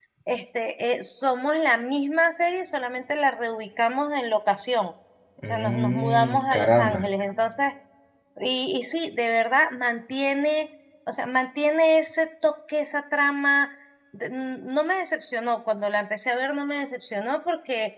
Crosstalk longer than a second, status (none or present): present